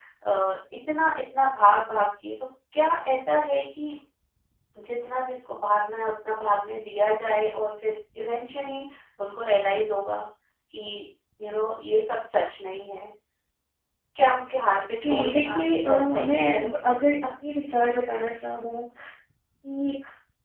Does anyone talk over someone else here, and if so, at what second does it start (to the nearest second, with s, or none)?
15 s